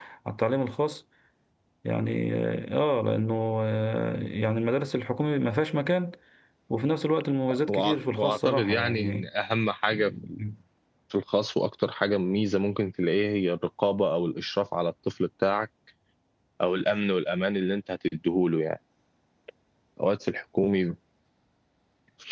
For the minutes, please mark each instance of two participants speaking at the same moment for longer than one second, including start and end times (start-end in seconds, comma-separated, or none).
7.7-9.3